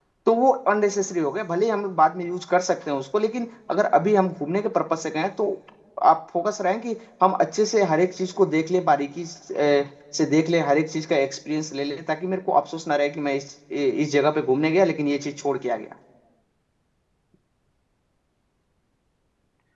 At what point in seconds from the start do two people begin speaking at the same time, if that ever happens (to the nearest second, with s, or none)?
none